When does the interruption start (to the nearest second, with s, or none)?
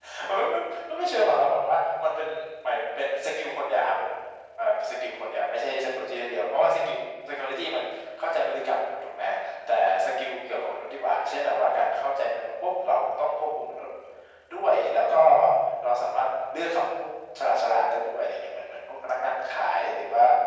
none